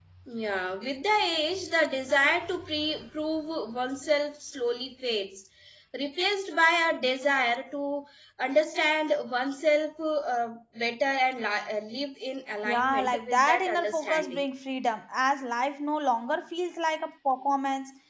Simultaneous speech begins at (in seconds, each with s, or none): 12.7 s